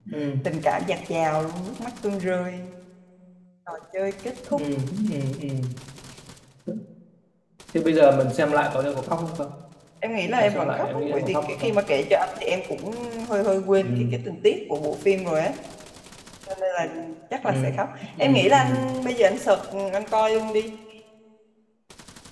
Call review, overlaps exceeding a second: present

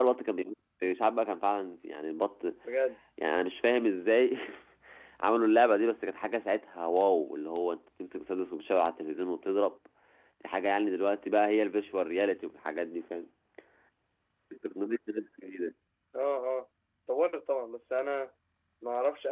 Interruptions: none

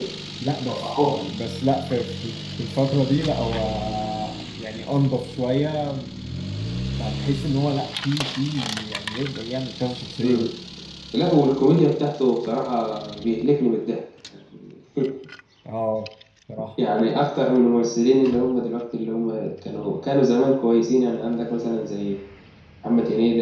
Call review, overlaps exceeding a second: none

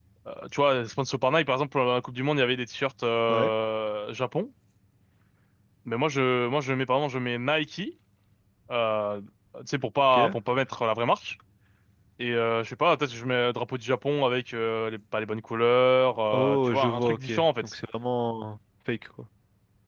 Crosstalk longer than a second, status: present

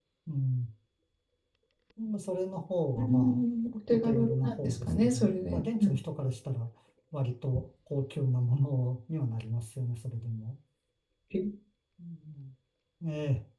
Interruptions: present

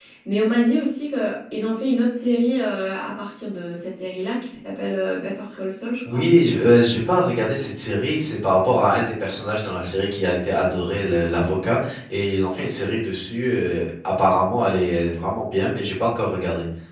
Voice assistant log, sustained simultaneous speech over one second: none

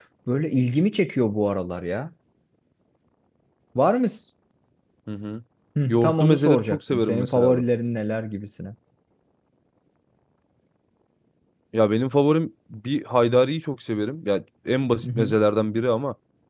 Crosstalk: present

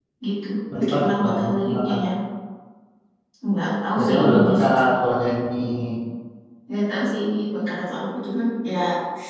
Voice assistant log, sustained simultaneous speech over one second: present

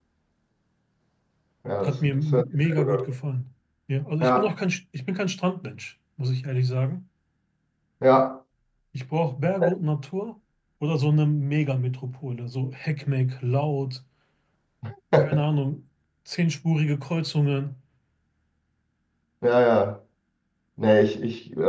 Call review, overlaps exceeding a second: present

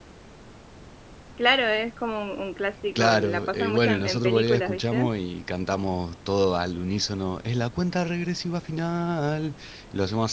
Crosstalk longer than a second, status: present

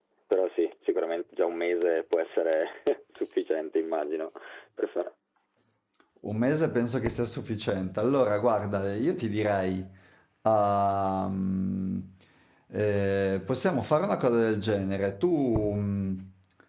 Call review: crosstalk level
none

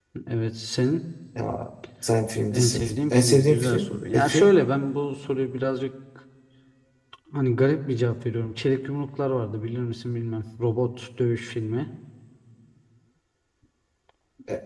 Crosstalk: present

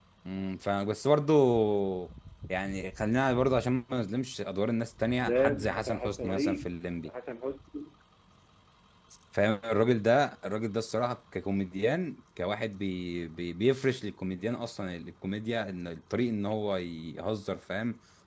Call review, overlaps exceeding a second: present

